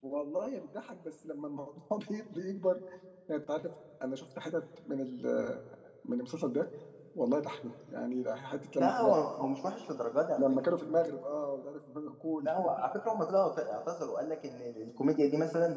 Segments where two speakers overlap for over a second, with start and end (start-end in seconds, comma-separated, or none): none